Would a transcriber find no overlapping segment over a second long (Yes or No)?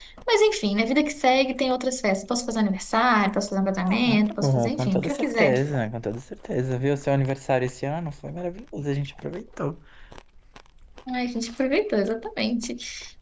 No